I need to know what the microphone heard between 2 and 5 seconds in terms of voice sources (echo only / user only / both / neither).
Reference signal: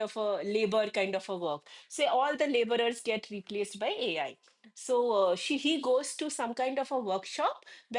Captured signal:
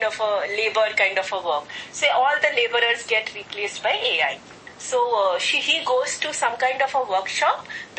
echo only